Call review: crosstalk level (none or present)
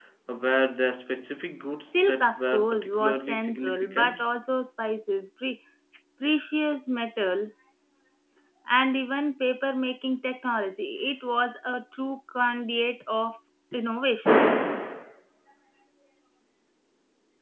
present